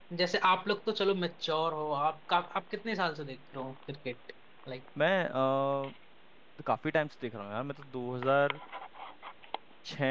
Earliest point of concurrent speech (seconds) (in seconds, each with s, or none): none